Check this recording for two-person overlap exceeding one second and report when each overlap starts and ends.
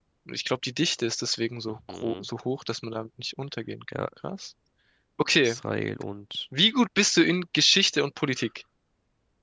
none

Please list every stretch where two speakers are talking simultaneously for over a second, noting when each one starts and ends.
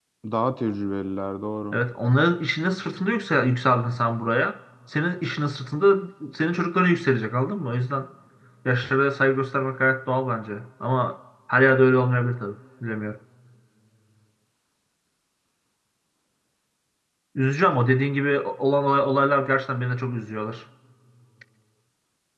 none

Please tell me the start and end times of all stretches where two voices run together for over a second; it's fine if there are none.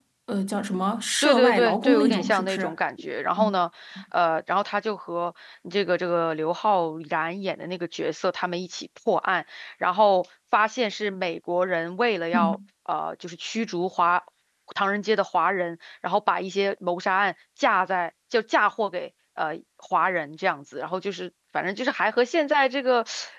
1.2-2.6

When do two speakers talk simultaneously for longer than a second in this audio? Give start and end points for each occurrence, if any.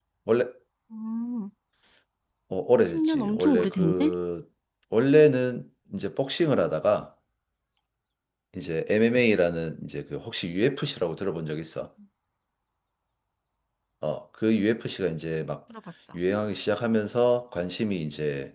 2.9-4.1

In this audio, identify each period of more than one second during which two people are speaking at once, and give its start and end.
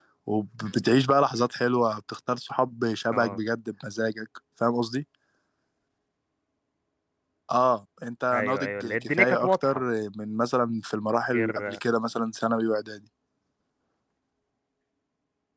8.3-9.8

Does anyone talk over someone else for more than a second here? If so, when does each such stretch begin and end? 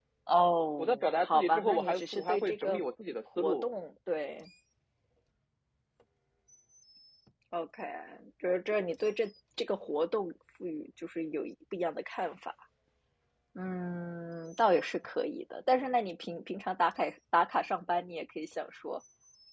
0.8-2.8

